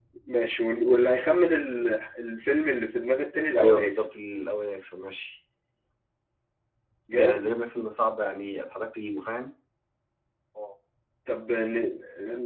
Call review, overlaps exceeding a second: none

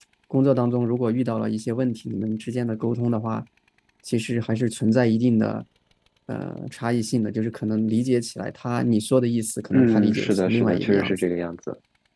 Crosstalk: present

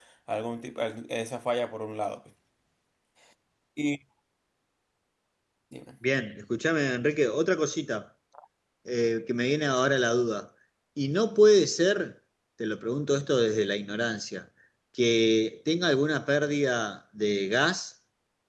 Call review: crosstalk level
none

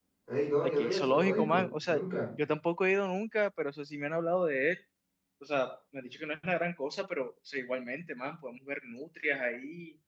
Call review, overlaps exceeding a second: present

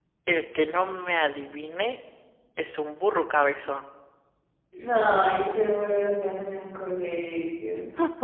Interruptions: none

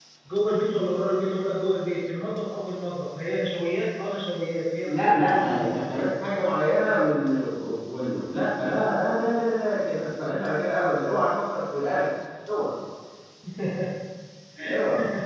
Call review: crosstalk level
present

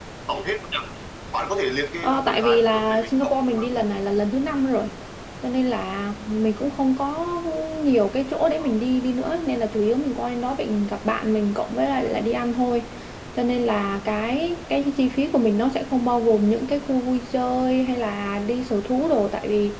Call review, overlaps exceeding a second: present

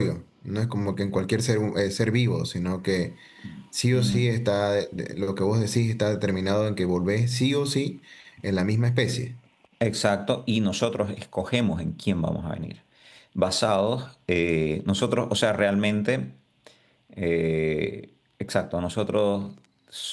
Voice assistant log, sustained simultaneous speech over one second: none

